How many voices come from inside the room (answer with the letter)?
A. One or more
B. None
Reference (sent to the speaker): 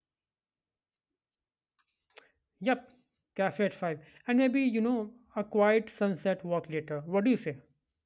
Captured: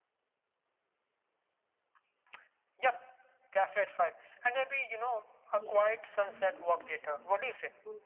A